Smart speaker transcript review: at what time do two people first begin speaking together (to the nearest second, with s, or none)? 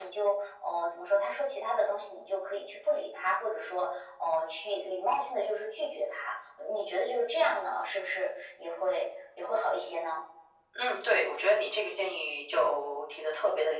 none